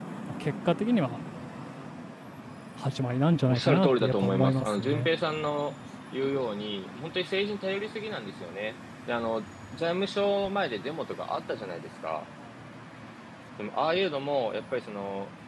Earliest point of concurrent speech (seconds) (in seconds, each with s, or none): 3.5 s